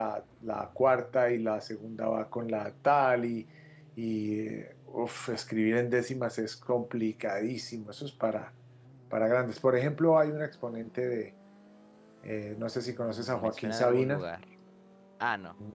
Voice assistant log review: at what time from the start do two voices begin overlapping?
12.8 s

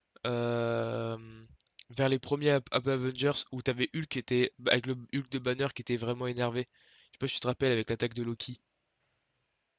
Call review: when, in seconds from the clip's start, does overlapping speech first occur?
none

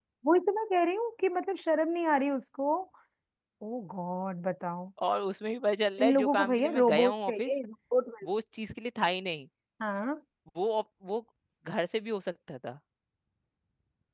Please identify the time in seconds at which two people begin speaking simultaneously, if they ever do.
6.0 s

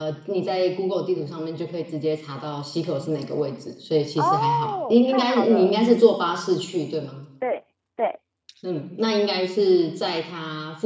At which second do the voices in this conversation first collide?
4.2 s

